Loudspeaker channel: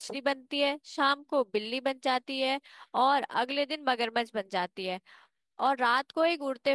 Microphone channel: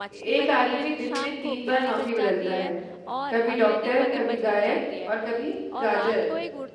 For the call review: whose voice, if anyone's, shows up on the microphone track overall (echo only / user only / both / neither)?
both